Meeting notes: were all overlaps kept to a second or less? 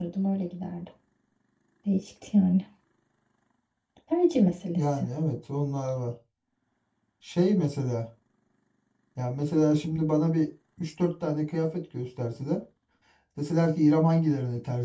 Yes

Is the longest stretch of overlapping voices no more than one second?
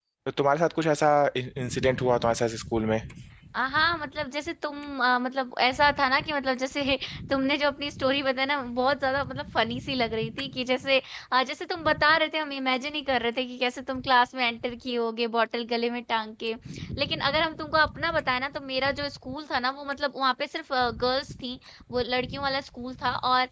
Yes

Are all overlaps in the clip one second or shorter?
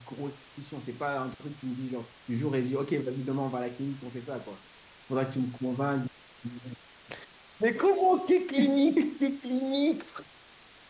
Yes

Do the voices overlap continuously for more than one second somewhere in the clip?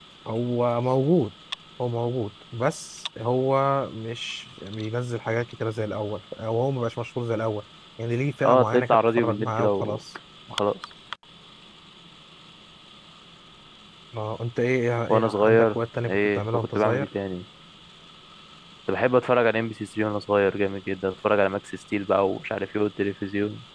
Yes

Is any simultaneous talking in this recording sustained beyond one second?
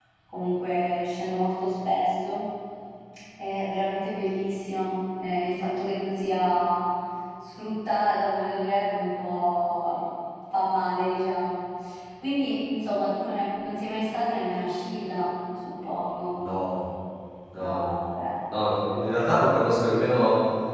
No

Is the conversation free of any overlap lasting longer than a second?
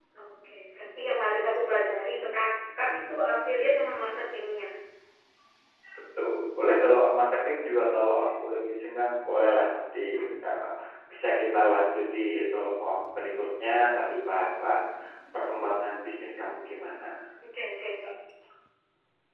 Yes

